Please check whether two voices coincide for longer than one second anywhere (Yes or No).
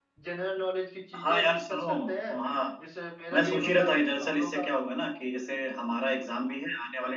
Yes